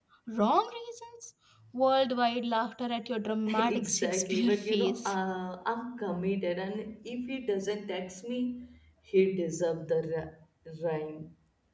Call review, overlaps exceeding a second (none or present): present